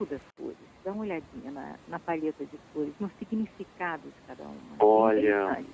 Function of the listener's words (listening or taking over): taking over